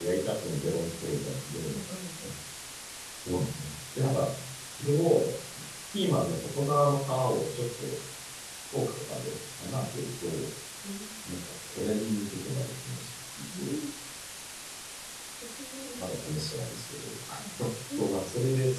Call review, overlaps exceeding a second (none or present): none